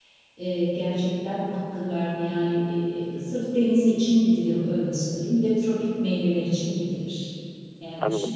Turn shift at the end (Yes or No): Yes